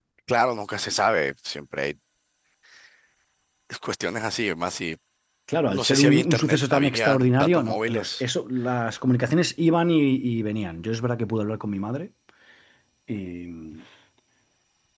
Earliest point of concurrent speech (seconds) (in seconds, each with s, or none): 5.7 s